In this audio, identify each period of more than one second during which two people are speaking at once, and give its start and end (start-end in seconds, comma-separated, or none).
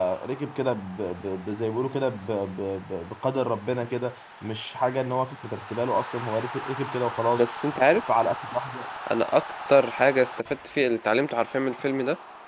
none